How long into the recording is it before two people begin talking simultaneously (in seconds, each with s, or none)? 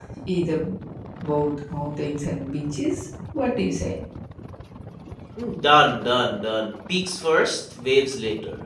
none